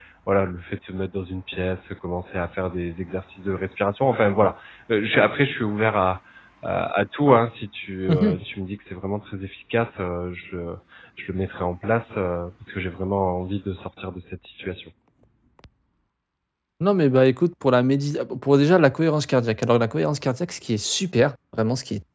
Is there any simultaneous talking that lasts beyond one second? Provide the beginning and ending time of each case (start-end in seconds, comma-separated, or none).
none